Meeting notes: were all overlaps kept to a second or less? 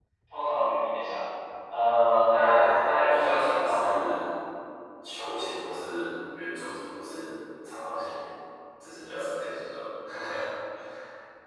No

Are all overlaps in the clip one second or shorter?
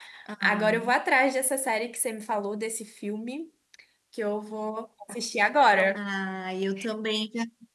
Yes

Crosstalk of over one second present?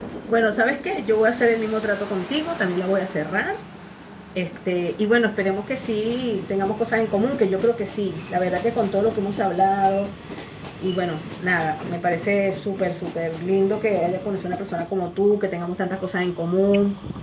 No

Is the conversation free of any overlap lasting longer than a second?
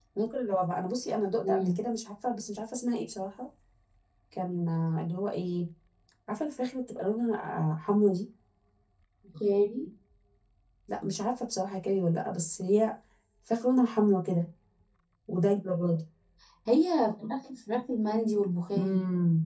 Yes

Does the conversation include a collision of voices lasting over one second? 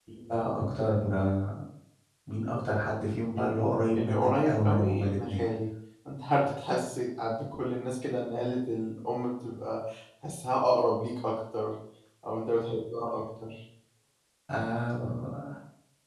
Yes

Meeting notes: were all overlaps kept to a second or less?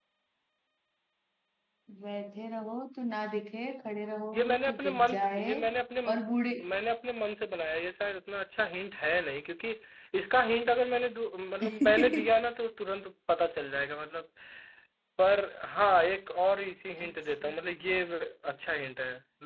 No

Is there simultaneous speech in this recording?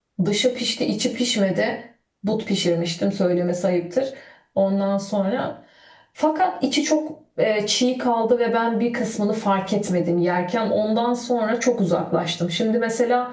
No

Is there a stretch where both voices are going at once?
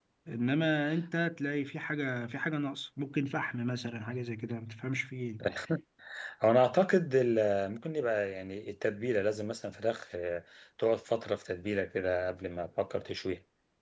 No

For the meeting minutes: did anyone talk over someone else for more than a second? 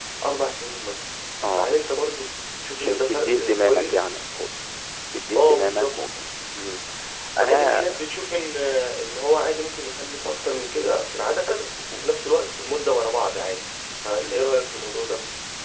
Yes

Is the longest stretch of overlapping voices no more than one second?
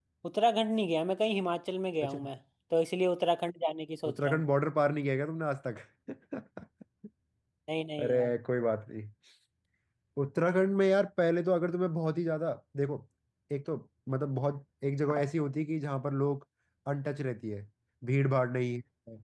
Yes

